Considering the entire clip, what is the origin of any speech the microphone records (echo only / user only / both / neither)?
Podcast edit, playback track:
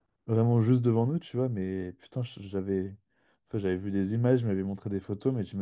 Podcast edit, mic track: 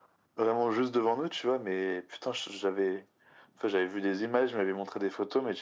echo only